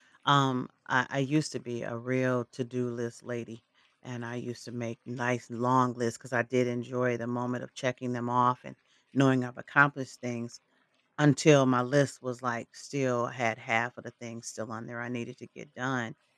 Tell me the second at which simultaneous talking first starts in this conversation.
none

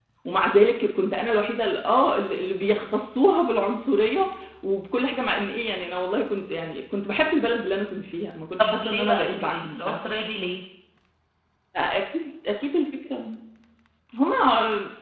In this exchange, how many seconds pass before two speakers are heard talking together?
9 s

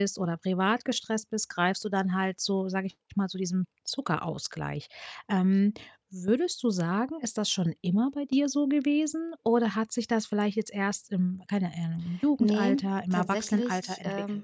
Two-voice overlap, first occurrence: 12 s

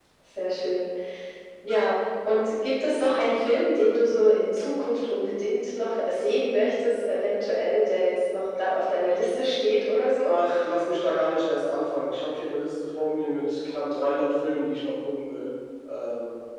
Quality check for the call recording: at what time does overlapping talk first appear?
none

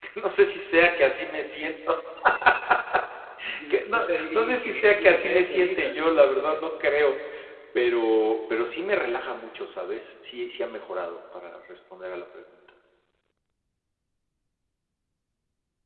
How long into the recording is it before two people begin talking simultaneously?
4 s

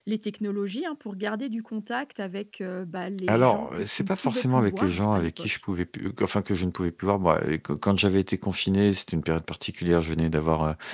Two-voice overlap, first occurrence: 3 s

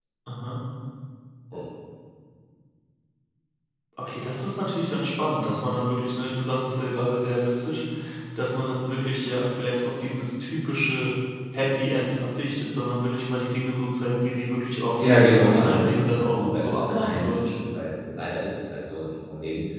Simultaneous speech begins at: 15 s

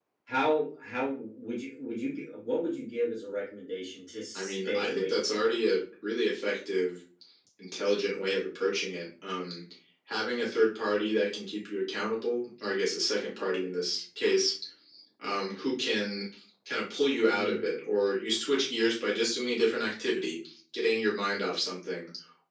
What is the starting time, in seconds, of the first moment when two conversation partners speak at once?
4 s

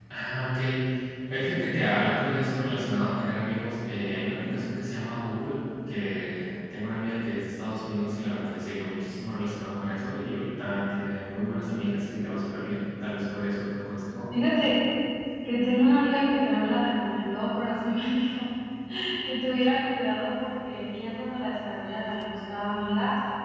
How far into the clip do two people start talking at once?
none

